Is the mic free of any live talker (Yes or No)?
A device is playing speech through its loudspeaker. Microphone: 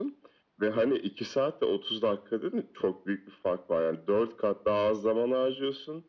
Yes